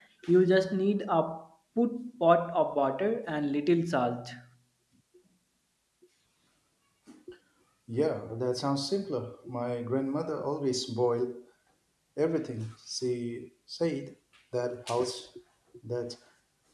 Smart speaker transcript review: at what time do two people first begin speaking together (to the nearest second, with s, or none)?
none